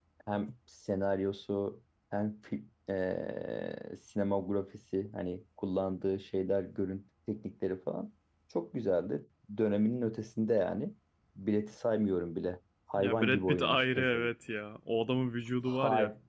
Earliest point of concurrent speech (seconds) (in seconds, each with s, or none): 13.0 s